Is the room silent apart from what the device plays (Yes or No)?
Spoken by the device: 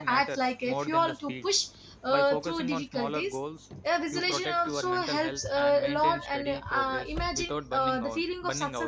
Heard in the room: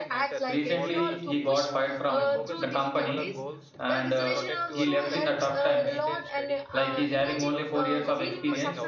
No